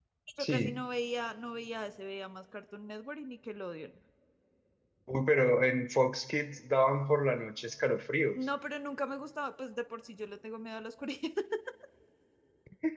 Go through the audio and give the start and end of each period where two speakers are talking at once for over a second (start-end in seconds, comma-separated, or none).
none